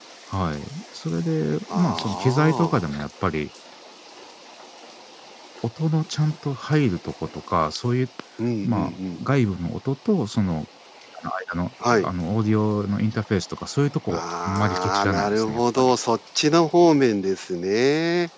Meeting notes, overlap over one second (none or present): present